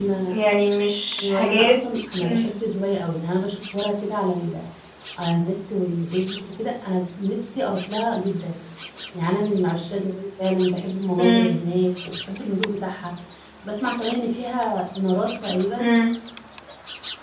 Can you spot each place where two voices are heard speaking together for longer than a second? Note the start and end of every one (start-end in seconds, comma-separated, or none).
none